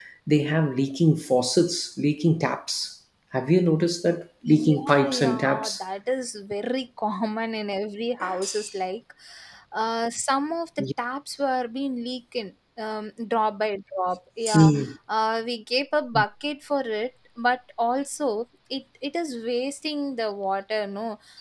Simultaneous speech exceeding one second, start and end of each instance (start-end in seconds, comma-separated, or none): 4.5-5.8